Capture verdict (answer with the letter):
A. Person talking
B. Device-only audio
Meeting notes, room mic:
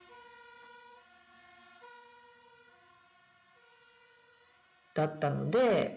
A